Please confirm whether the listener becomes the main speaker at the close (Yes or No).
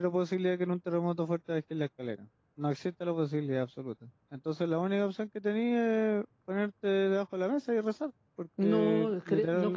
Yes